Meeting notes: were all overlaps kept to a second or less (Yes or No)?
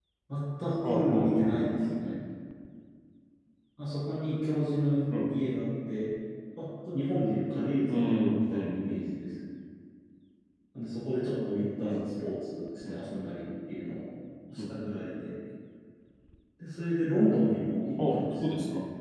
No